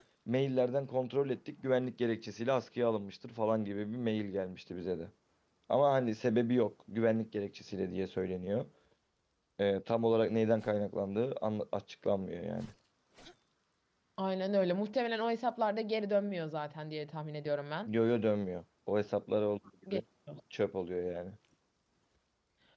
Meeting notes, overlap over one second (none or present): none